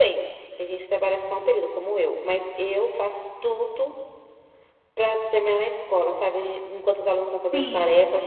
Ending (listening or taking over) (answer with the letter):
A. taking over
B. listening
B